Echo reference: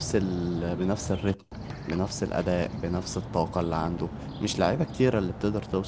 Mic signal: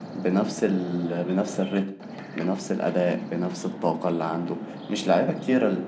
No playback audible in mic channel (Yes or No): No